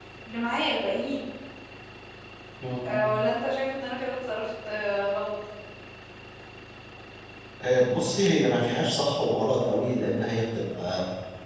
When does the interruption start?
none

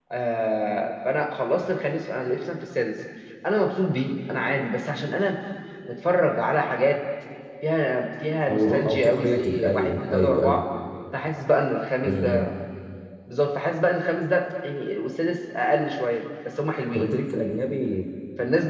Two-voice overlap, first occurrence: 8.5 s

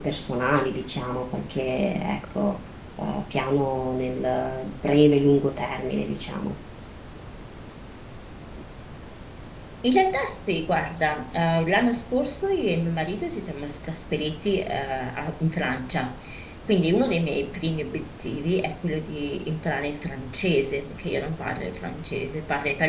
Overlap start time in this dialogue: none

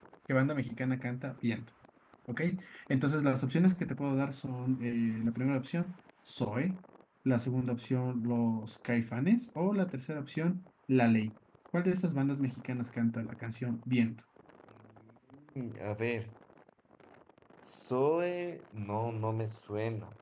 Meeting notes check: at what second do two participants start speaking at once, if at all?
none

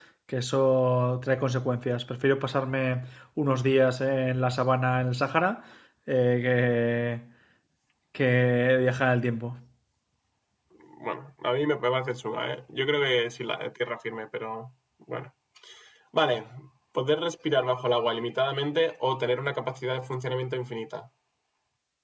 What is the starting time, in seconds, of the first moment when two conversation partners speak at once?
none

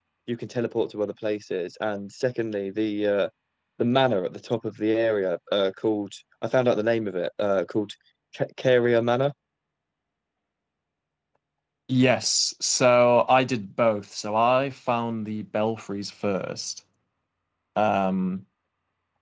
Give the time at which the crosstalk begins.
none

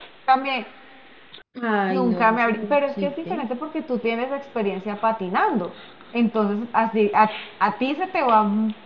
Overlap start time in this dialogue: 1.9 s

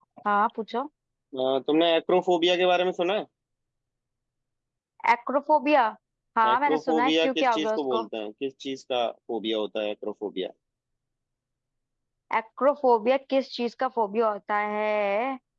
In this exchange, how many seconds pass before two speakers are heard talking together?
6.5 s

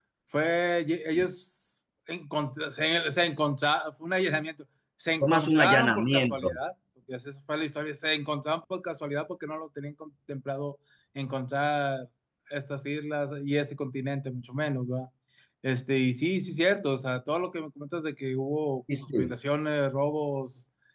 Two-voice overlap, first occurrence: 5.2 s

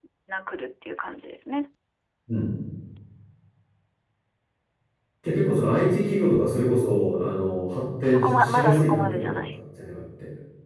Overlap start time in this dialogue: 8.1 s

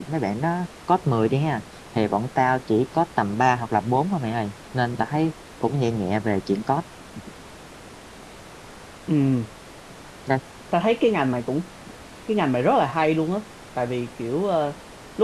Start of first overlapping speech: none

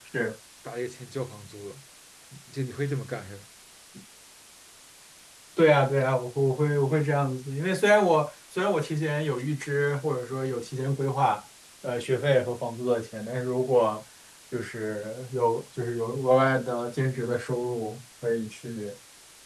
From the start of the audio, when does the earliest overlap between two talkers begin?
none

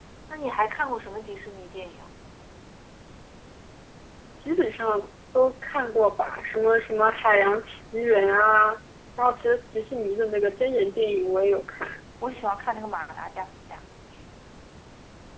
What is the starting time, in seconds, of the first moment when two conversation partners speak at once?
none

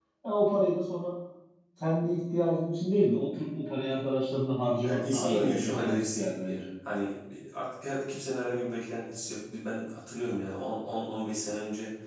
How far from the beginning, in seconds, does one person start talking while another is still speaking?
4.8 s

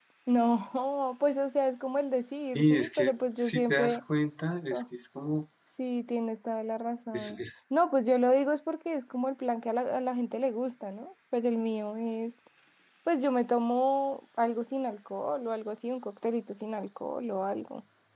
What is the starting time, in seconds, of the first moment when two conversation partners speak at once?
2.4 s

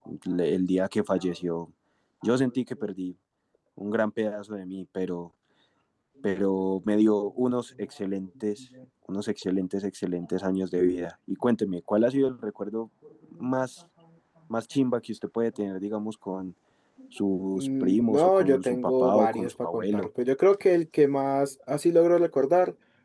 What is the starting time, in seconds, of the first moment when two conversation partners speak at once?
17.6 s

